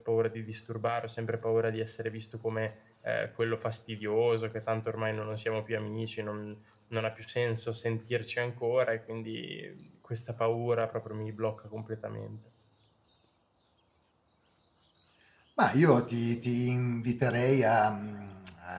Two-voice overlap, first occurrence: none

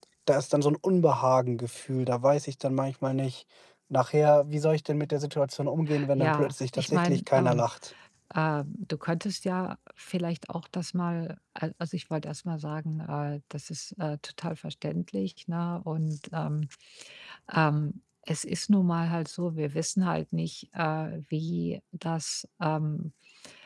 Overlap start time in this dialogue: 6 s

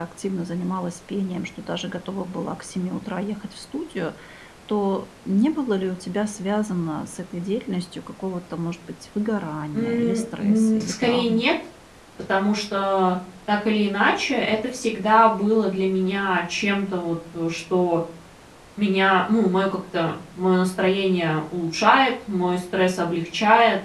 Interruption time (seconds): 10 s

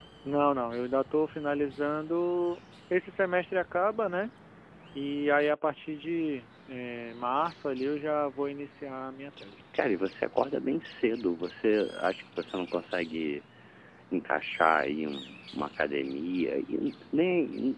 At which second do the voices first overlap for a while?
none

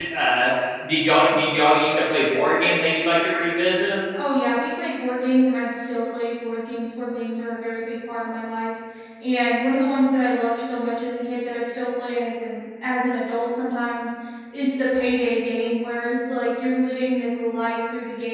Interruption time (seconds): none

